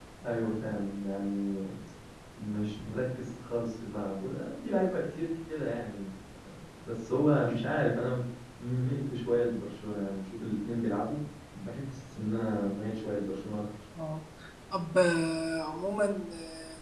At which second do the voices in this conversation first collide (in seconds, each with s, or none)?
none